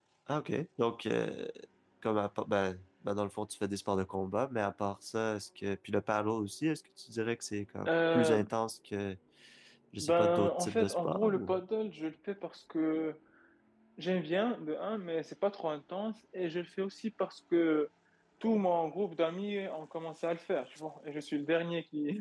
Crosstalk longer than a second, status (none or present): present